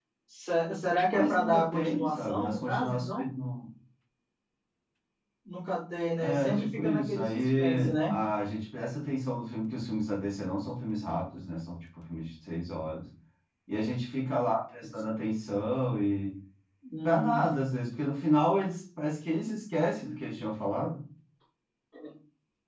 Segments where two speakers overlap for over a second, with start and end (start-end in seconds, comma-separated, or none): 1.1-3.3, 6.2-8.1